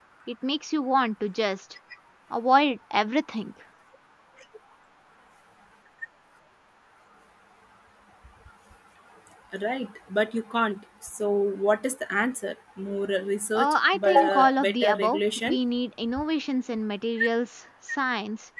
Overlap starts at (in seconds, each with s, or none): 13.6 s